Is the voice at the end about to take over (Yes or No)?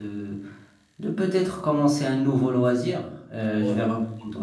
No